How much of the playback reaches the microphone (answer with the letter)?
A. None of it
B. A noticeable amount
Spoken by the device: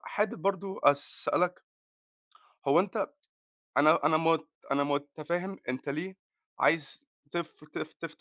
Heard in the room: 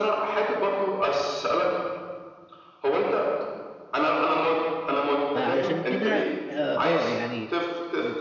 B